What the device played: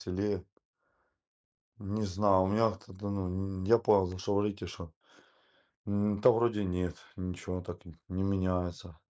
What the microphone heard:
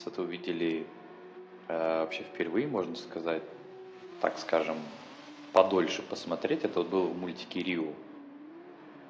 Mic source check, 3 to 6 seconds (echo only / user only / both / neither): user only